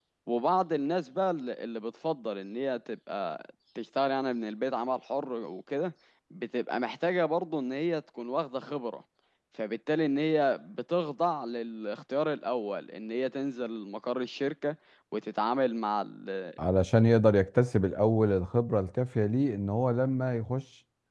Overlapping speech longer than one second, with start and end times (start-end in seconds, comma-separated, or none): none